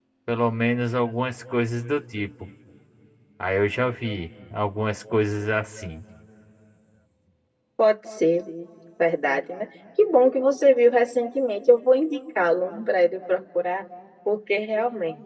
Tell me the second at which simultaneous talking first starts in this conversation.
none

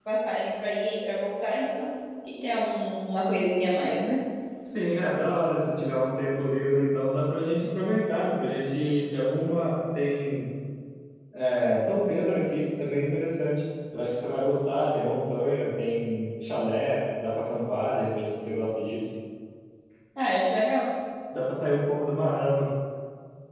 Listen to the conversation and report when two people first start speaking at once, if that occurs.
none

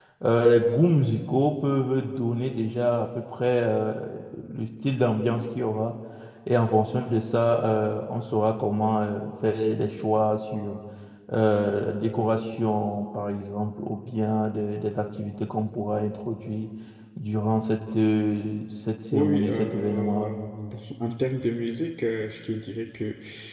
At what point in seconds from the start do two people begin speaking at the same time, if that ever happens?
19.1 s

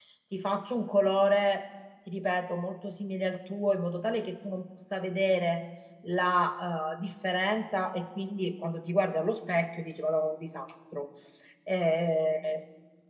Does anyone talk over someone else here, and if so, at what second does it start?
none

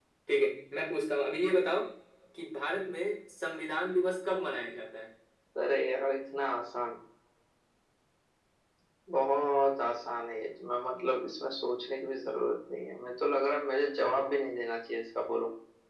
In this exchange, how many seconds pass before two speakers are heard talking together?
none

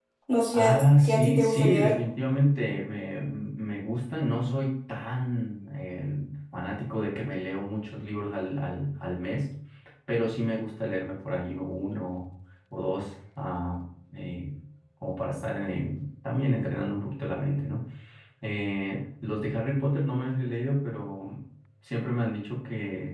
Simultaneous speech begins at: 0.5 s

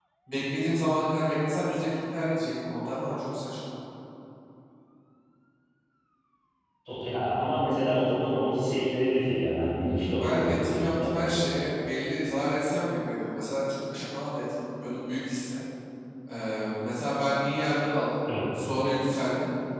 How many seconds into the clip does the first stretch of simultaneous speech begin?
9.9 s

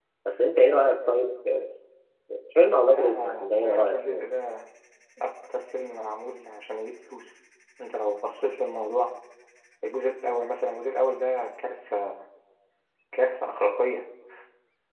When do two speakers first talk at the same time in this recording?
2.9 s

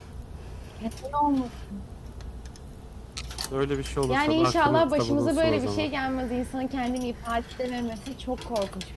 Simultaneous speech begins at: 4.1 s

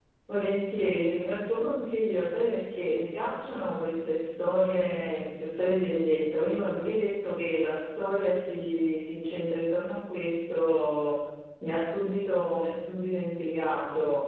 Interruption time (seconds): none

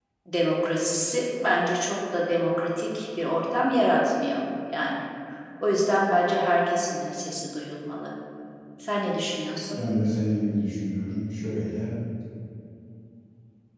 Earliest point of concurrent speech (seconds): none

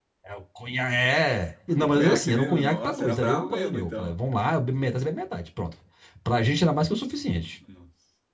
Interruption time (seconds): 1.7 s

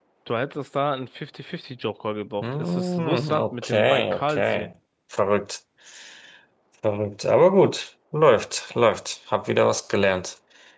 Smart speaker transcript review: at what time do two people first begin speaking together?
2.4 s

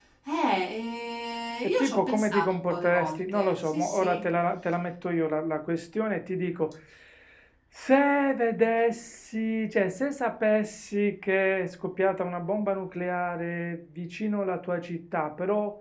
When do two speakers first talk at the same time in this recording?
1.8 s

